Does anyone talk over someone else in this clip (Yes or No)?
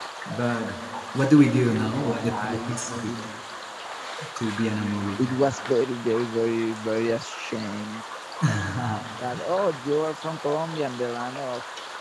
Yes